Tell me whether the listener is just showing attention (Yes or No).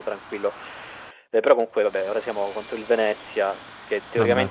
Yes